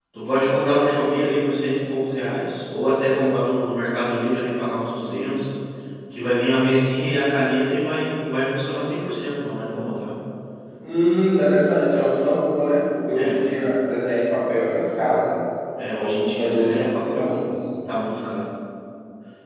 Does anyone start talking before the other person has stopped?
Yes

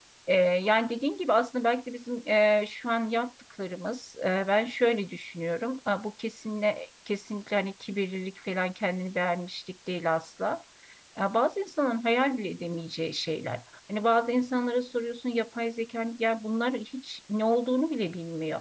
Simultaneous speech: No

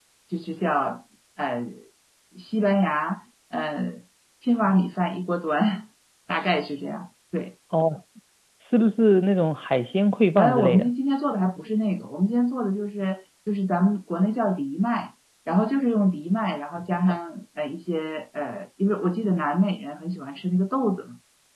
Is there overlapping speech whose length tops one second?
No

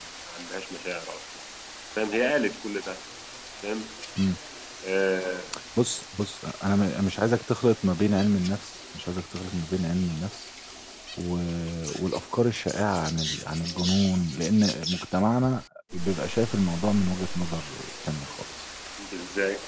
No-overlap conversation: Yes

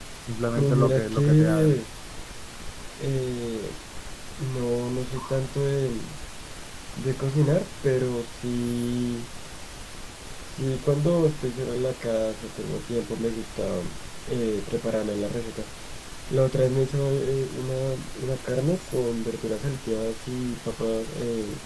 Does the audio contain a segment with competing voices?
Yes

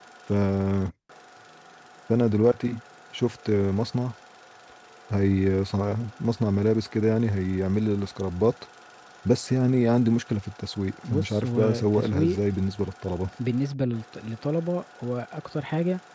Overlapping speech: Yes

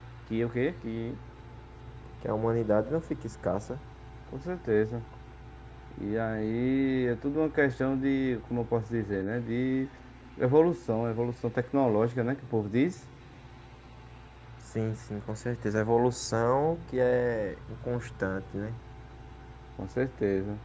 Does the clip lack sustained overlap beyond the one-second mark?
Yes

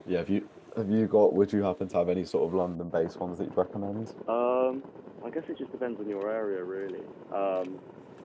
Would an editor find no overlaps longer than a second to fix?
Yes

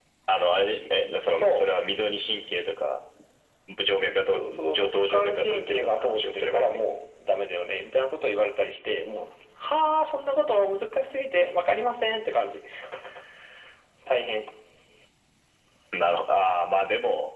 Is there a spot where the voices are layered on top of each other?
Yes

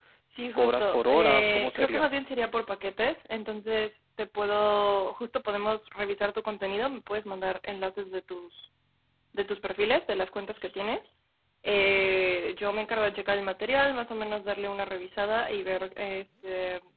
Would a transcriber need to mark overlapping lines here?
Yes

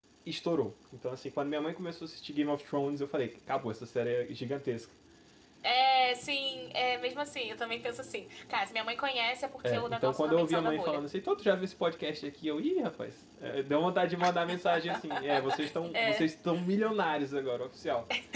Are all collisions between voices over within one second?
No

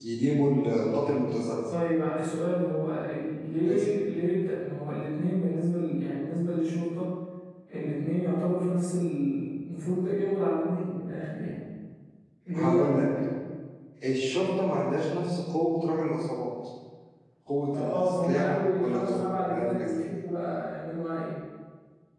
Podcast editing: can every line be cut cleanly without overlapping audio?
No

